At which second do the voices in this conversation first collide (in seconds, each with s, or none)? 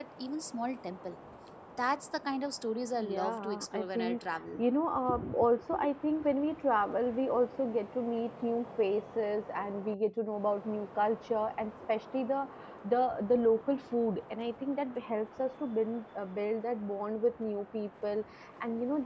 3.0 s